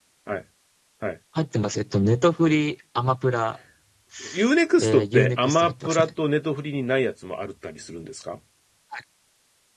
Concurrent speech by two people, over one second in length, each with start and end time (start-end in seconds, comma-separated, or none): 4.8-6.1